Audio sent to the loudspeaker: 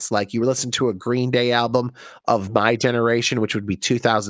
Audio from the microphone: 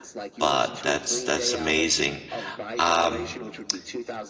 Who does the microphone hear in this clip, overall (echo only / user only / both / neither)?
both